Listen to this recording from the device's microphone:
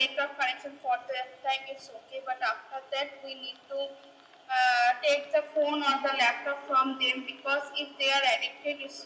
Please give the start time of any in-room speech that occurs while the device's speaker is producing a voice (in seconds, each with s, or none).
none